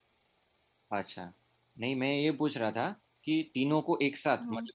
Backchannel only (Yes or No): Yes